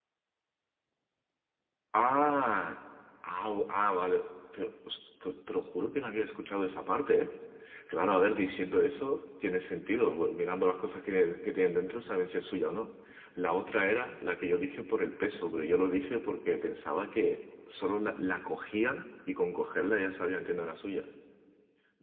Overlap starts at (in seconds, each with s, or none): none